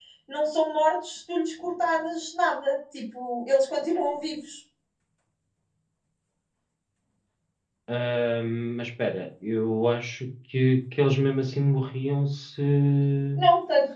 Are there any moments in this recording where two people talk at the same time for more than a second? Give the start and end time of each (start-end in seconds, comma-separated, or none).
none